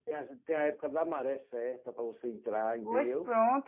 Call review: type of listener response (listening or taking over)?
taking over